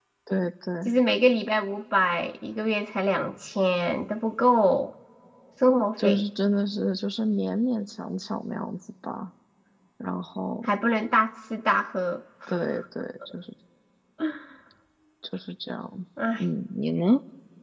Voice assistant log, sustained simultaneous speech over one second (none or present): none